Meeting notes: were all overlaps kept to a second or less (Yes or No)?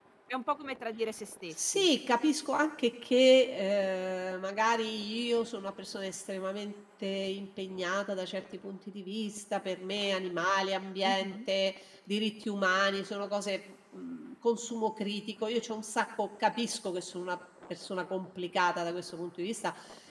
Yes